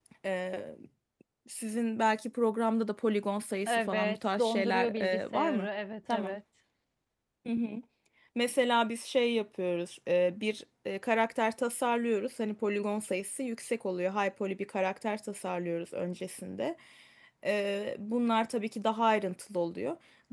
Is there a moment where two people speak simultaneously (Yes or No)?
Yes